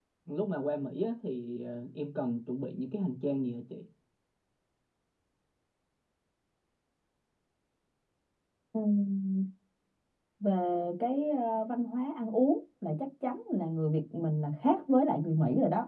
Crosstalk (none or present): none